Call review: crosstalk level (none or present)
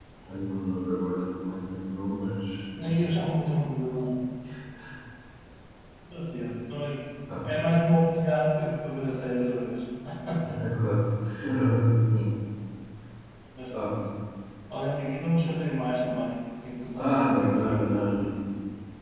present